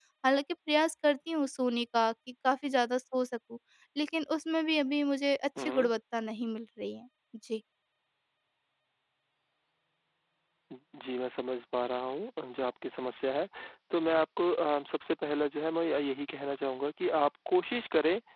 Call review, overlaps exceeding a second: none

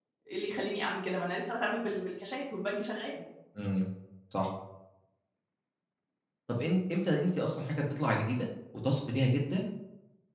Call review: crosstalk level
none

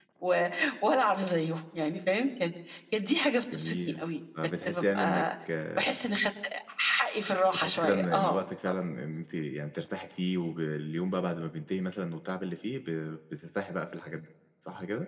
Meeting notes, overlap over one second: present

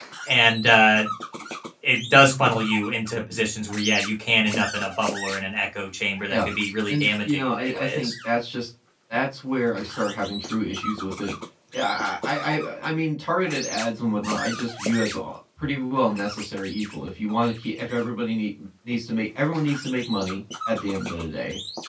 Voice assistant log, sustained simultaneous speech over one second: present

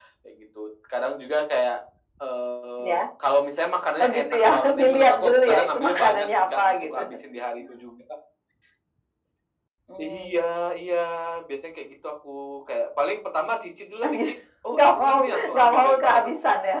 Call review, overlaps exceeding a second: present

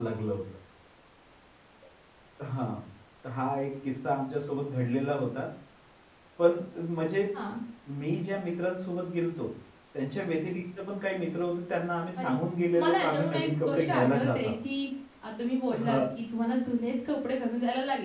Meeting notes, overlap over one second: present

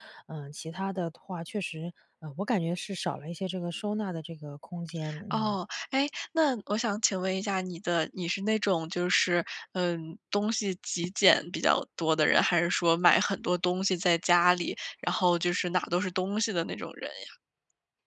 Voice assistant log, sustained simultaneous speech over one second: none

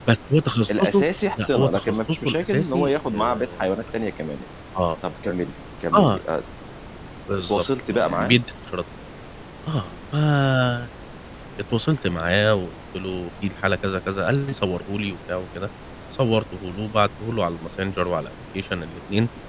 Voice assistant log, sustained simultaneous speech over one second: present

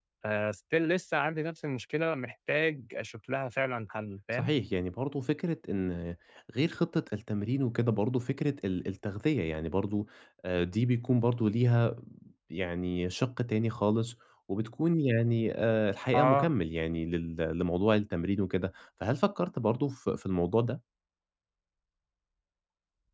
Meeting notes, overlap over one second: none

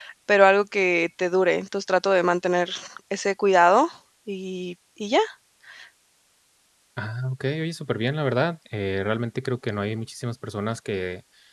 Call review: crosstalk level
none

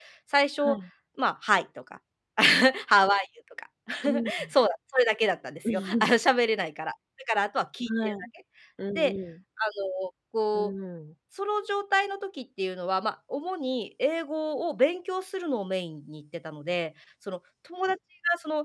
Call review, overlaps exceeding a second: none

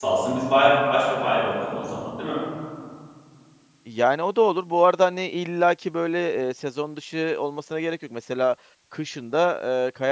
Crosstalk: none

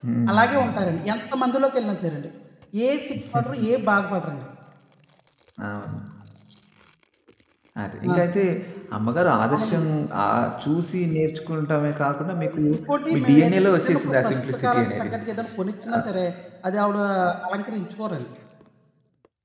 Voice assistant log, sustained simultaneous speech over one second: present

